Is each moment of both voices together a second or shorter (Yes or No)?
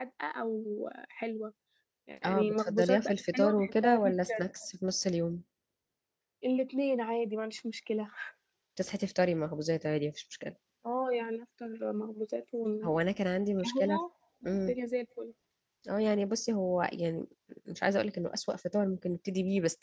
No